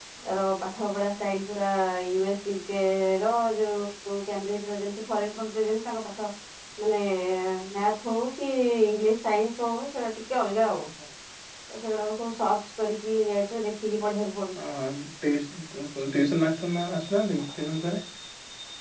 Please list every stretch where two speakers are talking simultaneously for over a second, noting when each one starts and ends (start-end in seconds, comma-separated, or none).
none